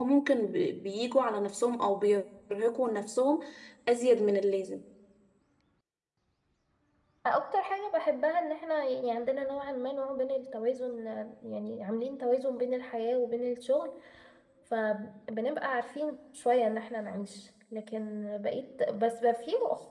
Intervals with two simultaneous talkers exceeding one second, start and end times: none

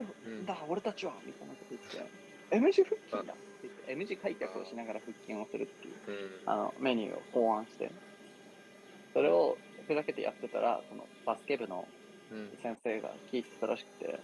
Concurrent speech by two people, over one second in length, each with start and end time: none

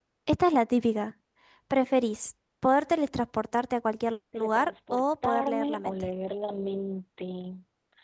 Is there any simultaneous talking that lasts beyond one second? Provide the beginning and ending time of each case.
4.4-6.1

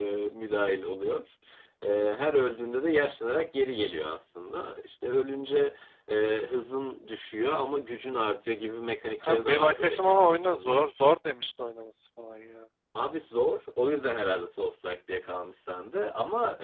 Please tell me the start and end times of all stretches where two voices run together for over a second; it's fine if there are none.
9.2-10.8

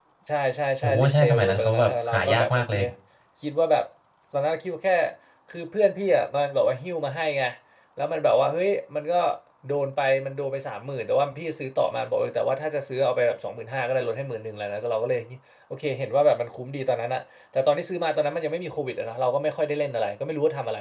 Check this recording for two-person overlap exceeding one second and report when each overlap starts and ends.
0.8-2.6

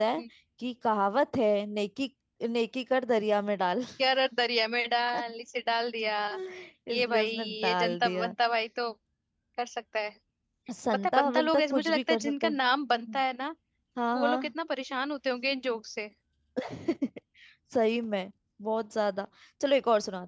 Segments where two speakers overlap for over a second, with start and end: 6.9-8.3, 10.9-12.6

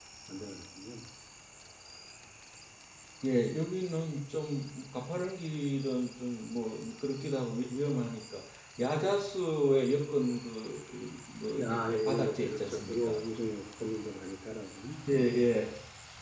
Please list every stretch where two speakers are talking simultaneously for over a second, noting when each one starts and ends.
11.6-13.2

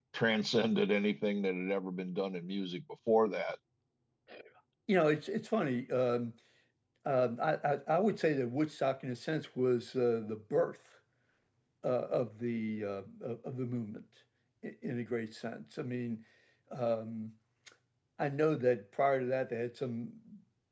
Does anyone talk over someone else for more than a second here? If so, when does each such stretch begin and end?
none

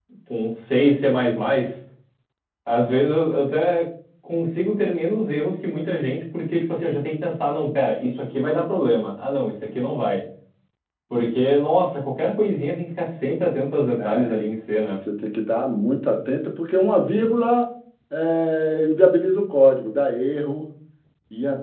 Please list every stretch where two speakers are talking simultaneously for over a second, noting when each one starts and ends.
none

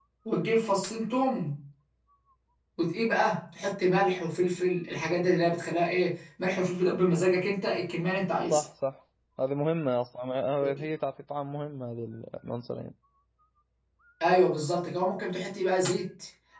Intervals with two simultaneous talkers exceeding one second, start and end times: none

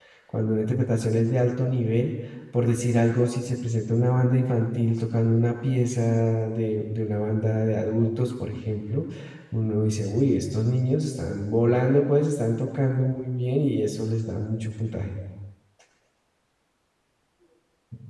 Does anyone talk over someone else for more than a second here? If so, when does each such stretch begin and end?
none

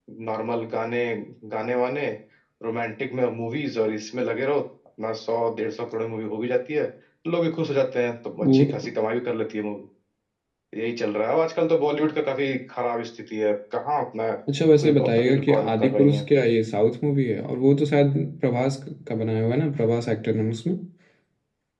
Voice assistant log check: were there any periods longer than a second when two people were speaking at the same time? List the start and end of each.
14.8-16.2

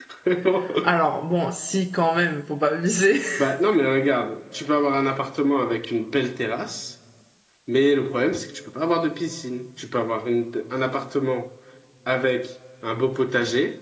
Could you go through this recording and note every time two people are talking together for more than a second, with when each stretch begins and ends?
none

